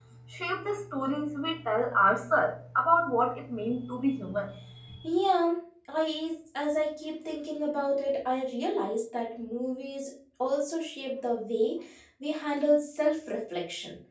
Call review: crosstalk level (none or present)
none